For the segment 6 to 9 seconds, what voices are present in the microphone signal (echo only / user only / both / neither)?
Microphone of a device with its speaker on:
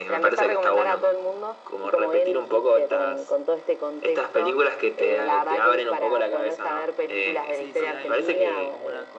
both